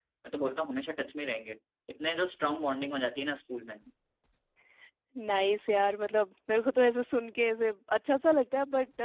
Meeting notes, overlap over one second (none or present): none